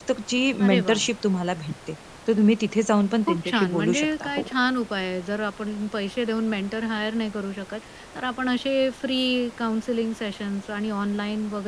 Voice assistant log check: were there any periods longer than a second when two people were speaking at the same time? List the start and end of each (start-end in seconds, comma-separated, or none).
3.2-4.5